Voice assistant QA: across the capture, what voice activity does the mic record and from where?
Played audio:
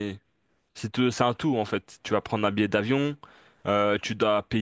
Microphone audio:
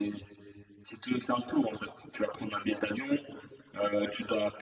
echo only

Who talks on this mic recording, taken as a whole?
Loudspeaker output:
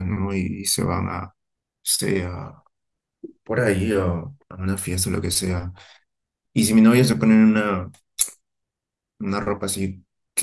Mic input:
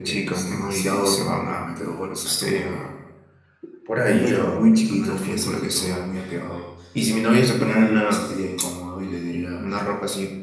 both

